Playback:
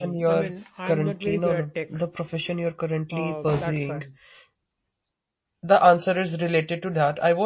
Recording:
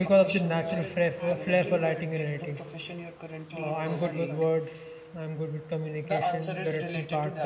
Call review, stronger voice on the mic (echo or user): user